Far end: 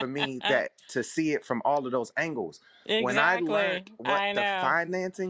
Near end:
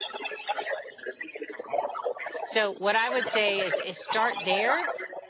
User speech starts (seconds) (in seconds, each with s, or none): 2.4 s